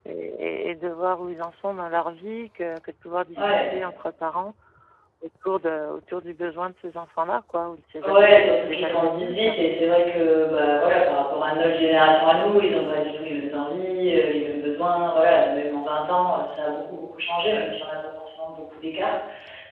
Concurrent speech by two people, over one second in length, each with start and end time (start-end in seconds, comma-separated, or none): 8.0-9.5